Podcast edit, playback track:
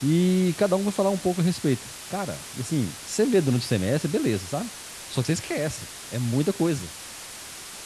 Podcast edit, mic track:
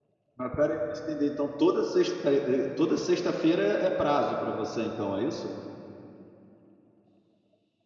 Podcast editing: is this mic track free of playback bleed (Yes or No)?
Yes